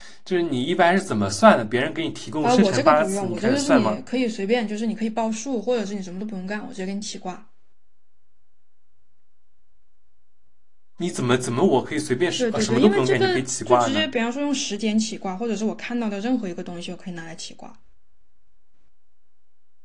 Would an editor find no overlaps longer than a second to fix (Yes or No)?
No